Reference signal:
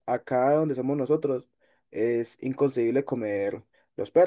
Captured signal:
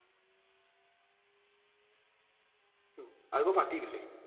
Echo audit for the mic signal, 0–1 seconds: neither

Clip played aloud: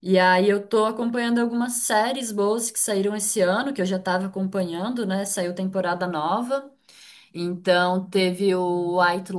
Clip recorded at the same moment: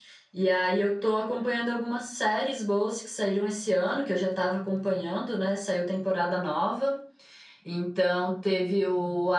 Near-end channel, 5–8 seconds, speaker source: echo only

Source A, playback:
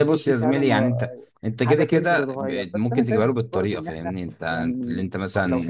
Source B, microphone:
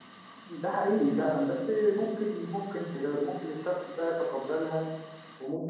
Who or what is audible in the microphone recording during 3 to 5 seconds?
user only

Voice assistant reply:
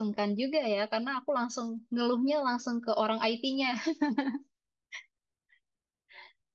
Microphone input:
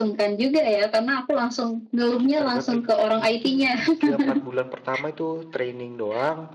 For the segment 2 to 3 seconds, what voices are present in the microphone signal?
both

